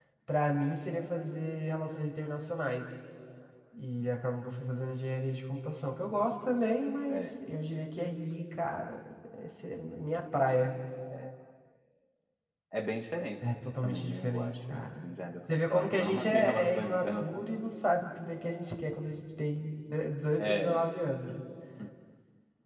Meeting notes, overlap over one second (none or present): present